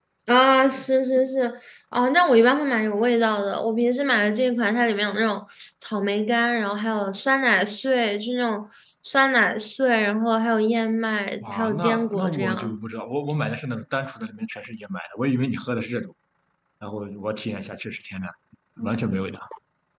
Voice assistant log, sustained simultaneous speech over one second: present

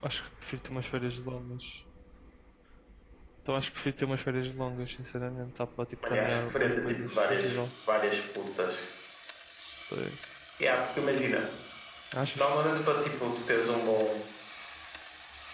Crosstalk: present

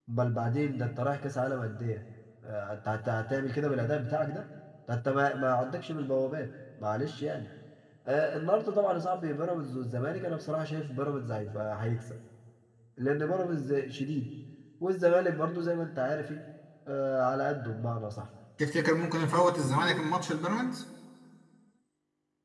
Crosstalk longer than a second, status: none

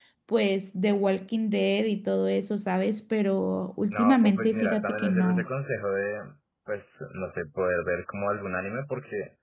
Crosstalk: present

